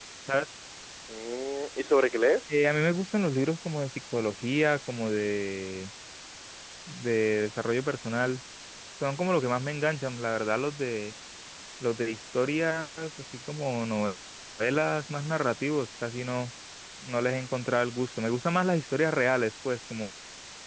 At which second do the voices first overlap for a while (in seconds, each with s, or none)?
none